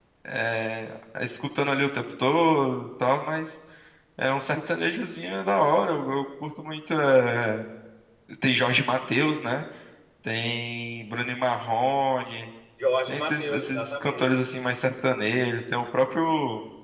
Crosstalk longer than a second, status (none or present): present